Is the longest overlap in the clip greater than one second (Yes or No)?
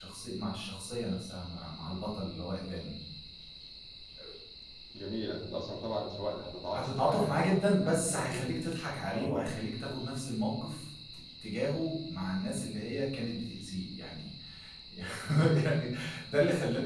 Yes